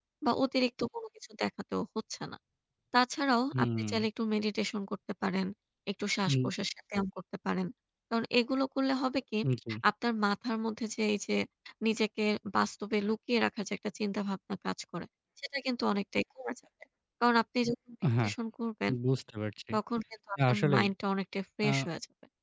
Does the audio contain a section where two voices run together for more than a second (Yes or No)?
No